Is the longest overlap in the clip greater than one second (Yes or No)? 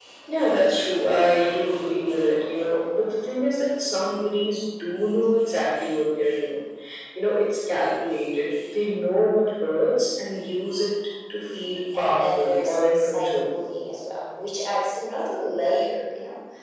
Yes